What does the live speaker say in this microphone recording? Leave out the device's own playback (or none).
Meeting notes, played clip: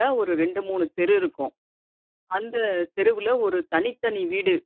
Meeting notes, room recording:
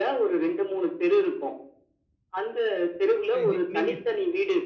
இ இ நீங்க